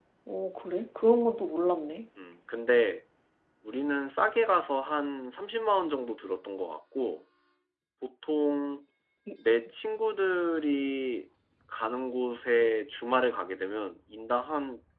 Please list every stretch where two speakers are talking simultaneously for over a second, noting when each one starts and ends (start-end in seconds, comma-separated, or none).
none